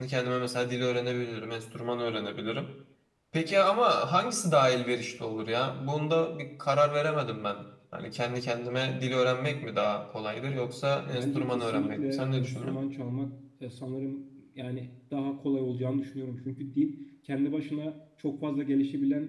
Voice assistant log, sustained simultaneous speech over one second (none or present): present